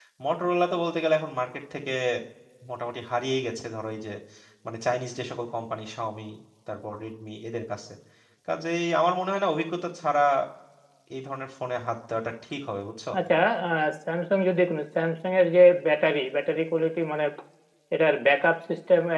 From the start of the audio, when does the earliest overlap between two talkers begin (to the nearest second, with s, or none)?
none